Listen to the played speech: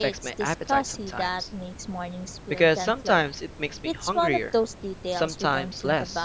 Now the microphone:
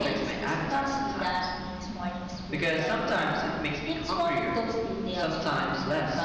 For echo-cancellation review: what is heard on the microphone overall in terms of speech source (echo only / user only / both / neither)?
echo only